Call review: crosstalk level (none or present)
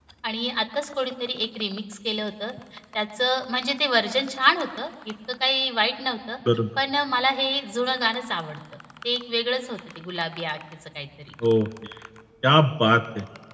none